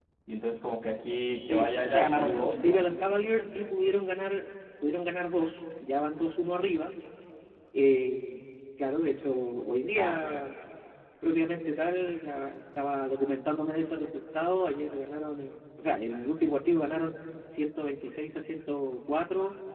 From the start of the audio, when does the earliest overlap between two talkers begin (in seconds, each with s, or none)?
1.4 s